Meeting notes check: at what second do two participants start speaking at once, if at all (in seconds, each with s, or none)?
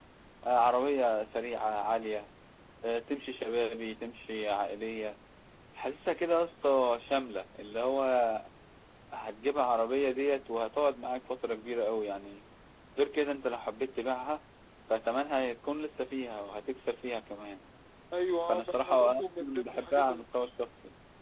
18.5 s